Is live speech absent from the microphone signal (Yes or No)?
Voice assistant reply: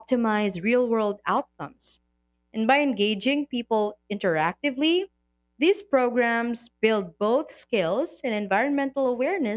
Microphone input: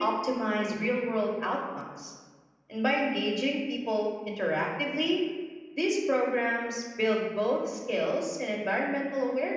Yes